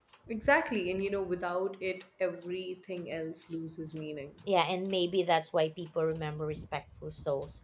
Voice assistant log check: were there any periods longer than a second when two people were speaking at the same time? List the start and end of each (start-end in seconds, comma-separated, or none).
none